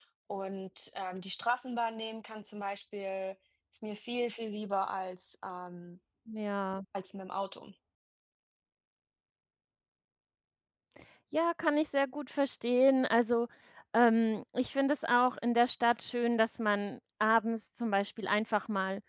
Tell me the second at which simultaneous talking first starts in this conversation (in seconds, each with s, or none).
none